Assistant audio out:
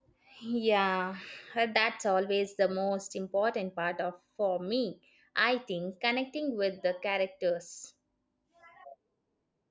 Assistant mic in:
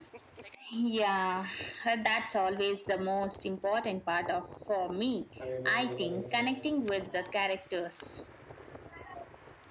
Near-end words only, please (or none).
Have you been to Italy before?